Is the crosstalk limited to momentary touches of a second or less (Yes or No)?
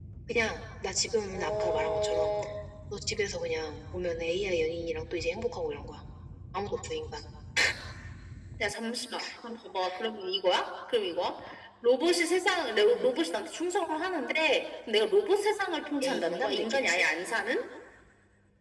No